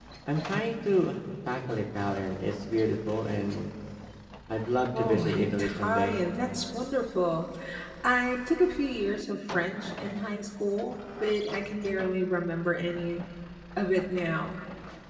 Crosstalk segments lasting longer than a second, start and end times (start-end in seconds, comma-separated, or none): 5.0-6.2